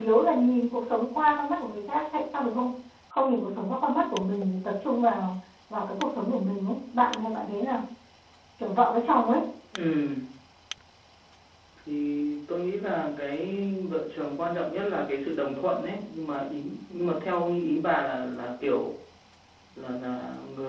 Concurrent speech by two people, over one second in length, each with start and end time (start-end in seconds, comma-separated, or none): none